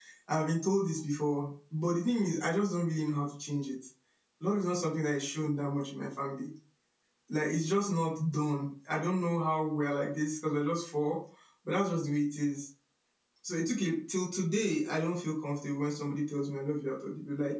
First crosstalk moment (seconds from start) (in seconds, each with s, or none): none